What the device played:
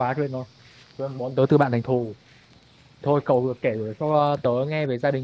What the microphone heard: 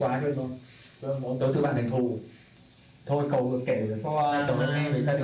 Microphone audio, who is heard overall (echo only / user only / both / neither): both